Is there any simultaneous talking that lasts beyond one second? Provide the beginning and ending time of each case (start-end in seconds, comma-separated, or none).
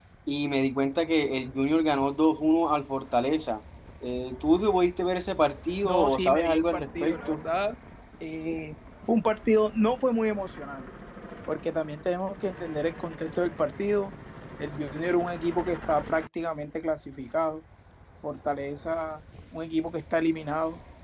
5.8-7.4